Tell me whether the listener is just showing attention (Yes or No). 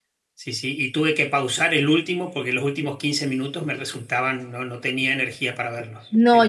No